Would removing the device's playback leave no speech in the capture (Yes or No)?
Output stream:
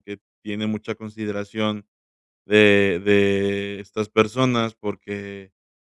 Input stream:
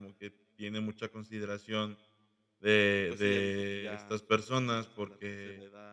No